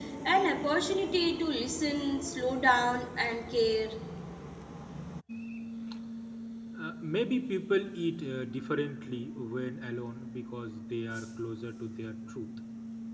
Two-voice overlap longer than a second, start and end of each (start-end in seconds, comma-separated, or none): none